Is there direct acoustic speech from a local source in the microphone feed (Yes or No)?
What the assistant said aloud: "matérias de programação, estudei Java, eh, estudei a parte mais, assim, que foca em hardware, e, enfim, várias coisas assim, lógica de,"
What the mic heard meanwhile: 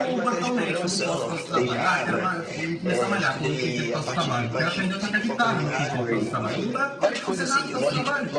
Yes